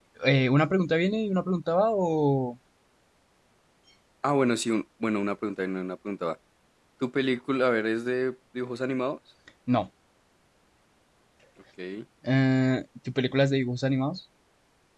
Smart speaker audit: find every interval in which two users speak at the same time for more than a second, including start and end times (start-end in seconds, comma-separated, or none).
none